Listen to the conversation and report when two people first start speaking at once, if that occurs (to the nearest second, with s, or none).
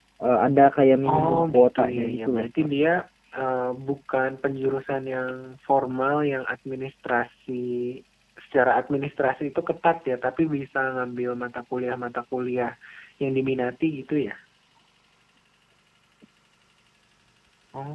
1 s